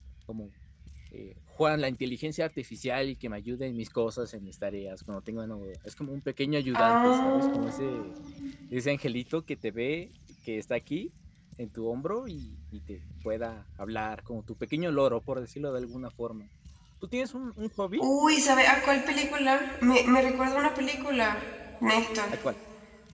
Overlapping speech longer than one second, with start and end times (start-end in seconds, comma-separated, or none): 6.7-8.0